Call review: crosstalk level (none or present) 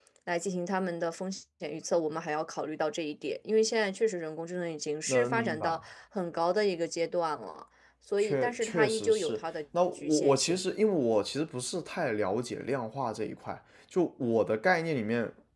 present